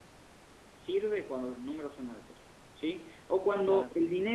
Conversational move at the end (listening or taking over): listening